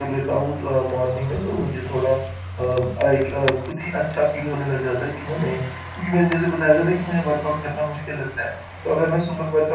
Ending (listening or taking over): listening